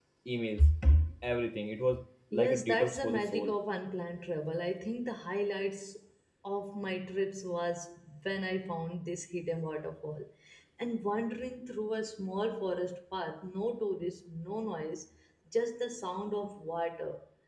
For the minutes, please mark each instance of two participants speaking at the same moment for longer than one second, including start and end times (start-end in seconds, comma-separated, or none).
2.3-3.5